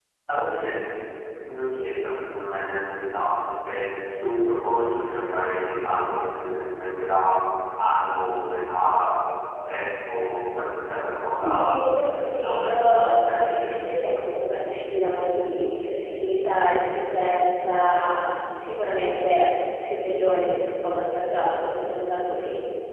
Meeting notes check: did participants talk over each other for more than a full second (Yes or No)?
Yes